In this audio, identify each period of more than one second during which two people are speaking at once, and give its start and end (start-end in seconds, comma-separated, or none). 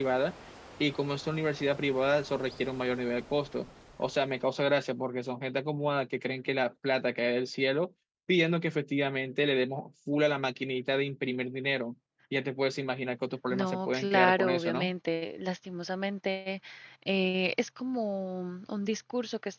13.5-14.9